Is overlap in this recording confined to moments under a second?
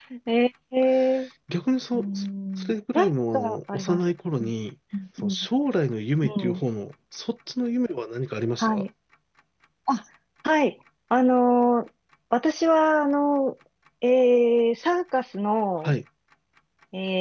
No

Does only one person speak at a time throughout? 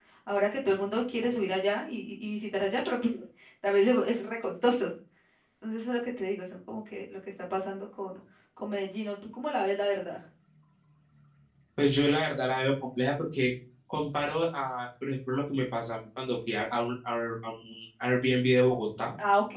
Yes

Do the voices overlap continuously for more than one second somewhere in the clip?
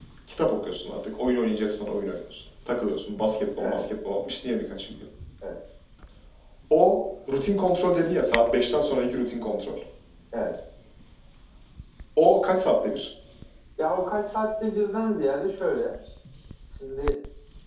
No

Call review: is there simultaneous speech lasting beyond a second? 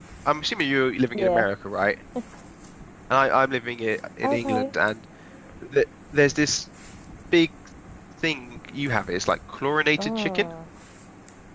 No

